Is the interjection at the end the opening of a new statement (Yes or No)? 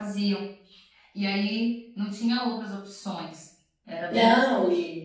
Yes